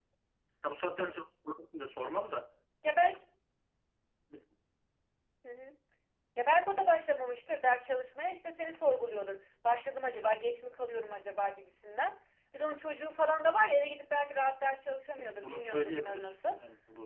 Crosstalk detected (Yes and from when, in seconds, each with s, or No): Yes, from 15.2 s